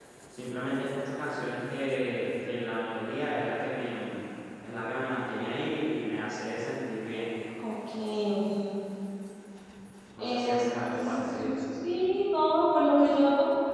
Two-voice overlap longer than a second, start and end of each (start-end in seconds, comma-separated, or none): 10.2-11.4